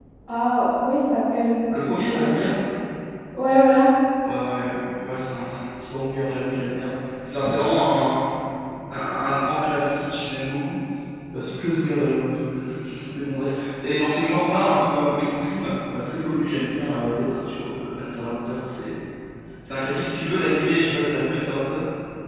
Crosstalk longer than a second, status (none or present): none